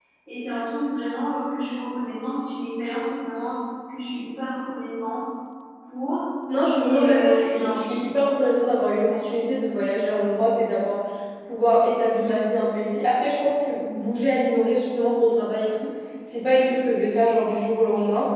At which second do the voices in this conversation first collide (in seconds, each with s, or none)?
6.8 s